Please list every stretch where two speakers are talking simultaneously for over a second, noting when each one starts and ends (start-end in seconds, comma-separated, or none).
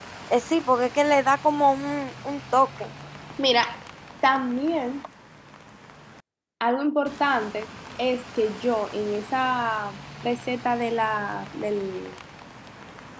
none